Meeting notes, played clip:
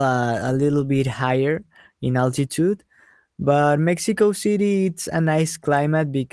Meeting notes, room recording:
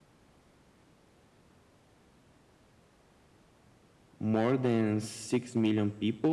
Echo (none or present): none